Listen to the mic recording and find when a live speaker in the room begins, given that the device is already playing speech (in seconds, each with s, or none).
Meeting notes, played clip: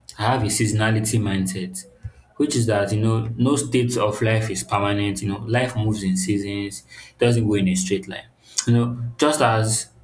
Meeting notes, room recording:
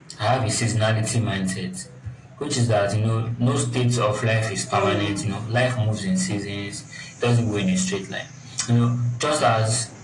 4.5 s